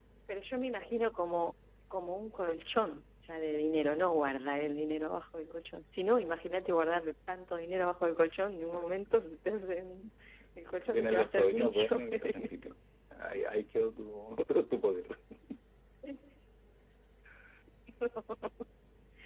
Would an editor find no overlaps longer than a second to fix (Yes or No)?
No